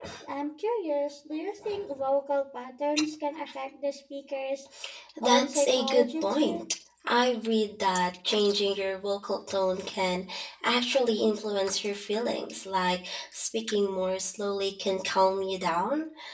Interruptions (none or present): present